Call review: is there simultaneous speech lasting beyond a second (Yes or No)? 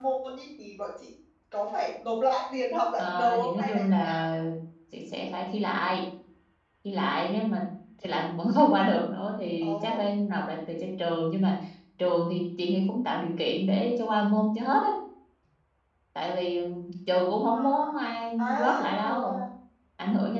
Yes